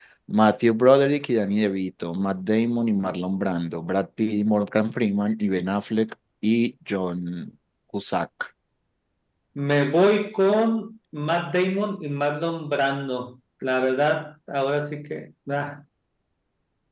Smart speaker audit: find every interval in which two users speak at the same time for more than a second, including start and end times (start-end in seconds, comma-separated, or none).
none